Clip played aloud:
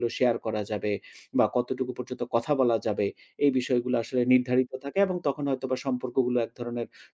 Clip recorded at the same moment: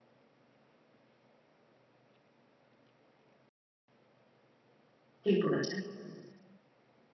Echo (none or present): none